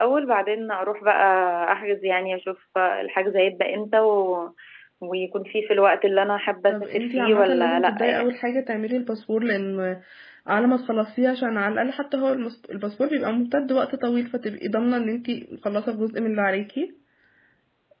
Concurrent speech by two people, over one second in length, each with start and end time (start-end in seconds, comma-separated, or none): 6.7-8.3